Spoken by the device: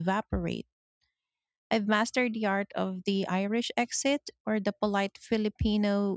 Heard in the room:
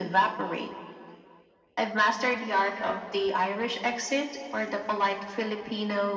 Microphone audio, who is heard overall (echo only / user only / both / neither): echo only